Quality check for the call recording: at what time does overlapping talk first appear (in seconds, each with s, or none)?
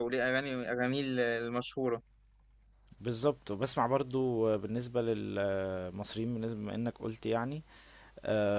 none